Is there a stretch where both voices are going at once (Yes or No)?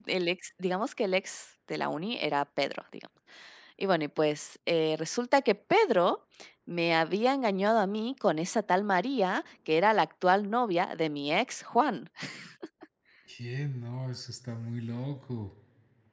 No